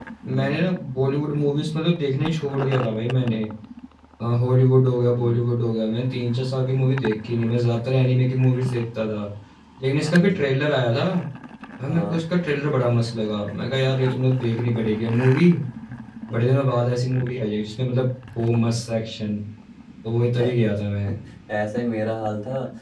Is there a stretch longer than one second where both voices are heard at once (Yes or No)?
No